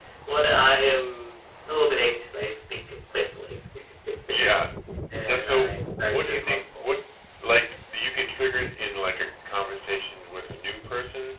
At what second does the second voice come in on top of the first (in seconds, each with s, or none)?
5.3 s